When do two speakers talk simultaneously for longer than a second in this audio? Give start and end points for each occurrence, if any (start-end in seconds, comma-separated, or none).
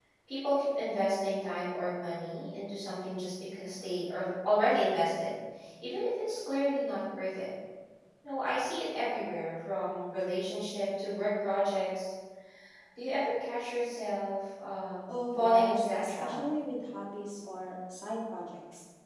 15.1-16.3